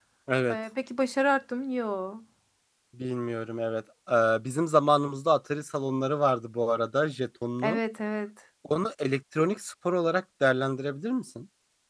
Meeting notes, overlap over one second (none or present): none